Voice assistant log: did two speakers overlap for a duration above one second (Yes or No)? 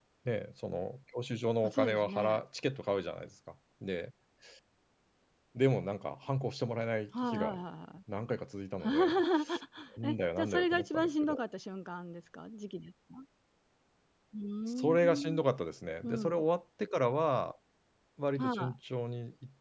Yes